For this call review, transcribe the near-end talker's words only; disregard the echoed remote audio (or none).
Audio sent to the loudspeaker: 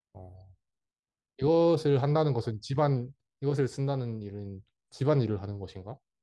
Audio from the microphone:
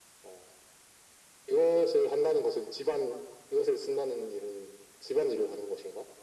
none